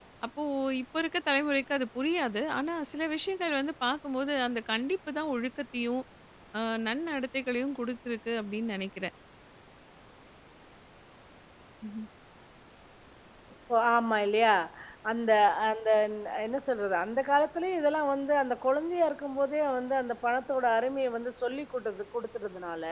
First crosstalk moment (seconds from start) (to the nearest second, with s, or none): none